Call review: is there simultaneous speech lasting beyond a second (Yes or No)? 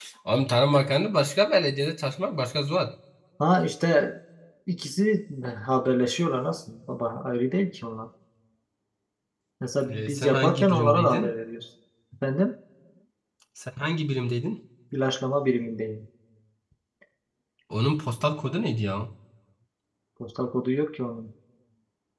Yes